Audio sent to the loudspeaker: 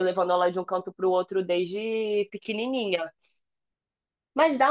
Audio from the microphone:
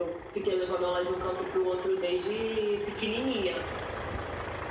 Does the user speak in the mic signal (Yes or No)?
No